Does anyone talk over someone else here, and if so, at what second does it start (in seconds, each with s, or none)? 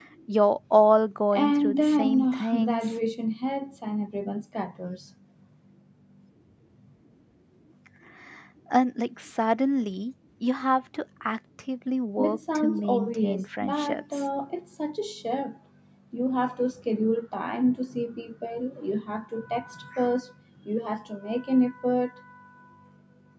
1.3 s